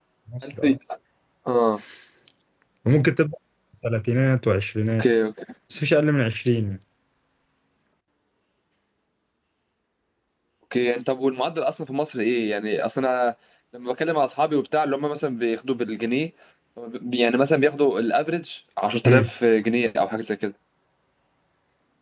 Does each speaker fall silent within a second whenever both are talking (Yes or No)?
Yes